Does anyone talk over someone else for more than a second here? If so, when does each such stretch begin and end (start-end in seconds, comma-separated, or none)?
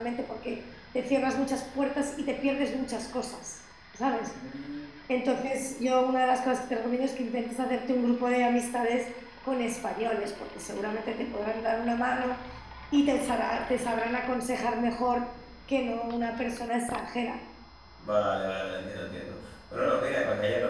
none